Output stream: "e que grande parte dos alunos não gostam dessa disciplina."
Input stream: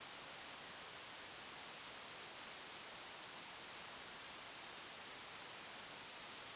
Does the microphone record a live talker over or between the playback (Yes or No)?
No